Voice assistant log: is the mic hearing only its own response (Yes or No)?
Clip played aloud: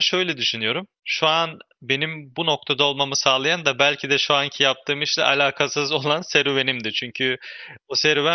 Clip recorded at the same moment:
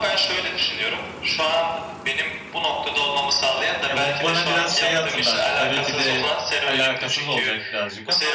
No